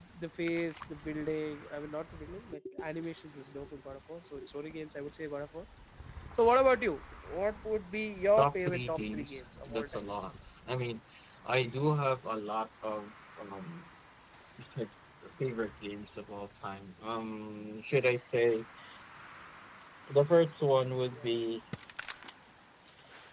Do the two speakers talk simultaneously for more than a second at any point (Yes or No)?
Yes